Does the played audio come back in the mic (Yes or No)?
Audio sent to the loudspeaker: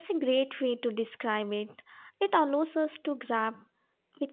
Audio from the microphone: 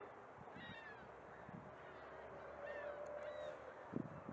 No